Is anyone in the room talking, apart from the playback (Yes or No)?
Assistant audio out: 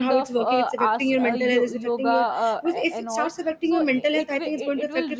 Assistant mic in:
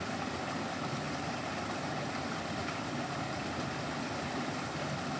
No